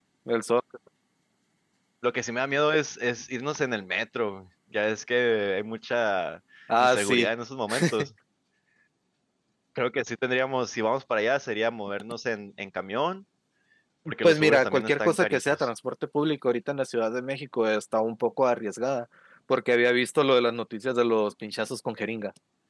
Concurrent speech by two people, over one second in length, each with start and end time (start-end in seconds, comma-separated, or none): 14.2-15.7